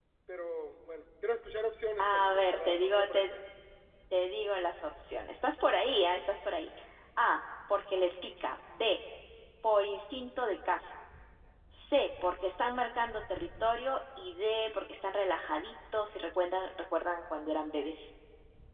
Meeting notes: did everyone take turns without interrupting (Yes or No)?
No